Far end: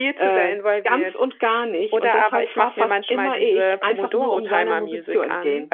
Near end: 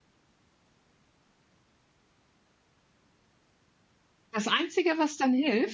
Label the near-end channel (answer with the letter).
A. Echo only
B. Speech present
B